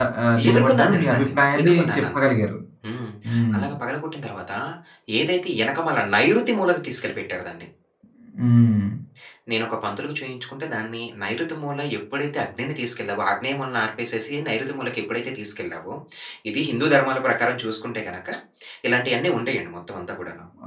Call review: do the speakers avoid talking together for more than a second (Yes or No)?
No